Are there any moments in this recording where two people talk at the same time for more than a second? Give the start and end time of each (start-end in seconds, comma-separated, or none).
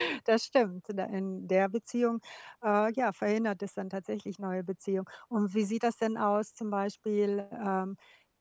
none